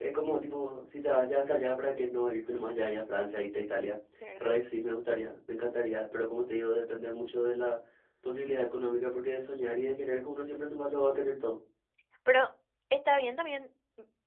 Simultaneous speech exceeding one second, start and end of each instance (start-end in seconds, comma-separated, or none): none